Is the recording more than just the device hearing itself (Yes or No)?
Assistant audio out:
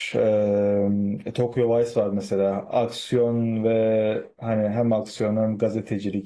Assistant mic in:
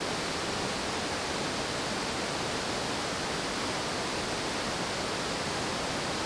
No